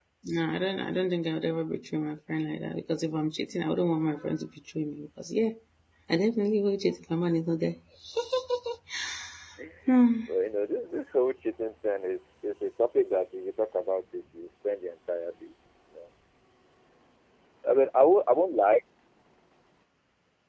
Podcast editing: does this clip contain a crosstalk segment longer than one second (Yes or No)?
No